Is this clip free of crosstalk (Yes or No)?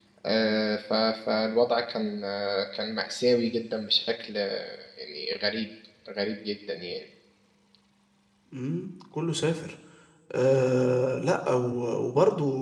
Yes